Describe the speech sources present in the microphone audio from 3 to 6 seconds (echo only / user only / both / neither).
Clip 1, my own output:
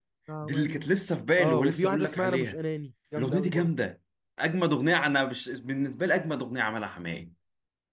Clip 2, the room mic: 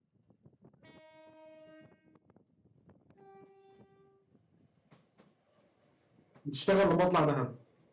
neither